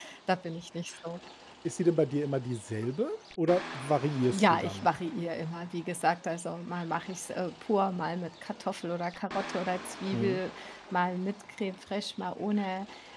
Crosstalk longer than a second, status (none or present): none